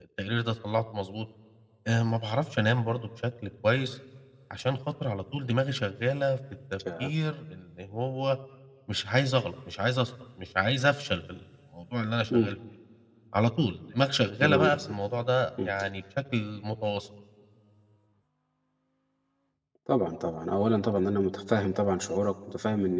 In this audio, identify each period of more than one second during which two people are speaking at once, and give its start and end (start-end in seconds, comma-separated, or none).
none